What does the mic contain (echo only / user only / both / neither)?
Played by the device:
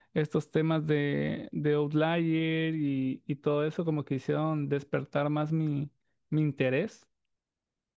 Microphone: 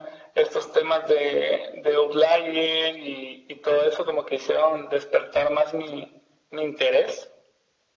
echo only